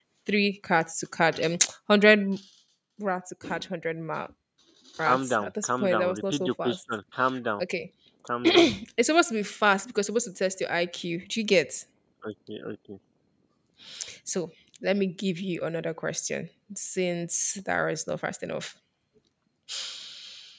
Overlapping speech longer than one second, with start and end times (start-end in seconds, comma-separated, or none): 5.0-6.8